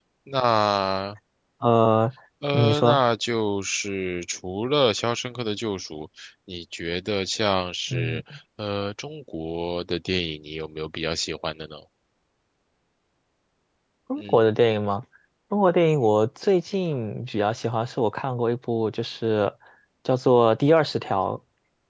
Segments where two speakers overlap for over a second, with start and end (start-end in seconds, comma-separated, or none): none